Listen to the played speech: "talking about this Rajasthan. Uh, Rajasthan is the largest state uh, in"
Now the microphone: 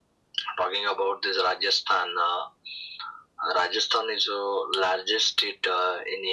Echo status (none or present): present